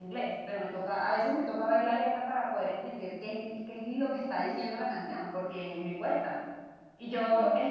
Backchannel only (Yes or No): Yes